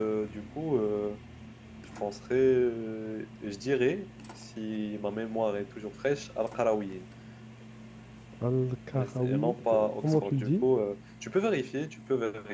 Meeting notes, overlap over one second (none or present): present